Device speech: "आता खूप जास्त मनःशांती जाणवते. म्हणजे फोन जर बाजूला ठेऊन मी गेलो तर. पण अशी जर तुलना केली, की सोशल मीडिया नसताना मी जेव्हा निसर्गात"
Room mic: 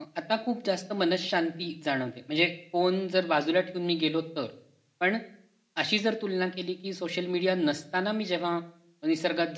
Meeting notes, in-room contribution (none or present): none